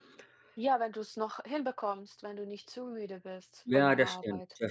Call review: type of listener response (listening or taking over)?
taking over